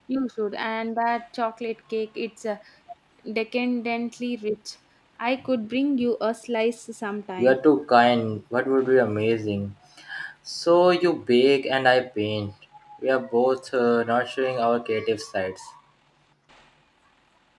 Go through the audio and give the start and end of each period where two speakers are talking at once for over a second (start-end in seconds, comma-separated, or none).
none